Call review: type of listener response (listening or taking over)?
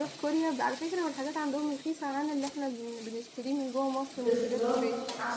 taking over